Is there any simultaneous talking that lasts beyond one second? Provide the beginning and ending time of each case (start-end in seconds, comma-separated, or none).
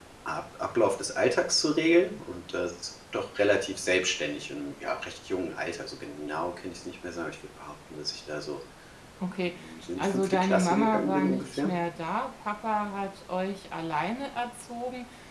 10.0-11.7